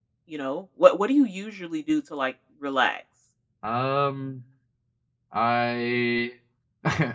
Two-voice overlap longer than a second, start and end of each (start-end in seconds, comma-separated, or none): none